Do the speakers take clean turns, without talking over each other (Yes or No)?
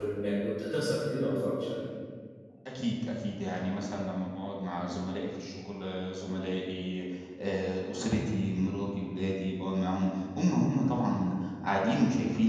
Yes